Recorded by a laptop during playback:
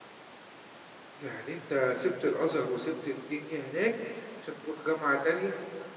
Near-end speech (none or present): present